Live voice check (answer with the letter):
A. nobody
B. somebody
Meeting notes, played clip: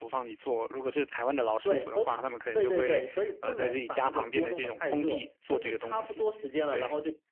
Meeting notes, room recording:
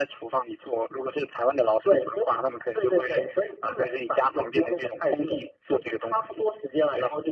A